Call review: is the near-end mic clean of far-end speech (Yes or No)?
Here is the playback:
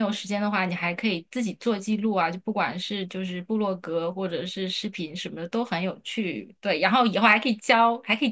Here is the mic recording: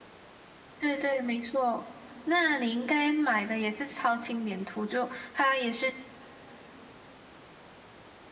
Yes